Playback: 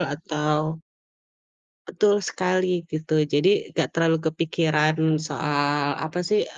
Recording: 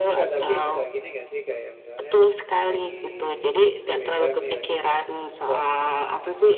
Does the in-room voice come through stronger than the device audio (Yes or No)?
No